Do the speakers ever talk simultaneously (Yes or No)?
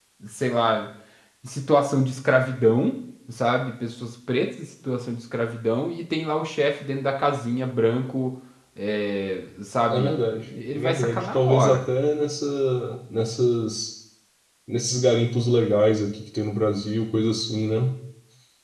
Yes